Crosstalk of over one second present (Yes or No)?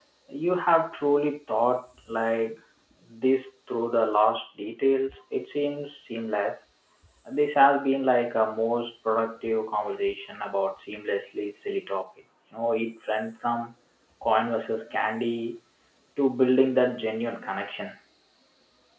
No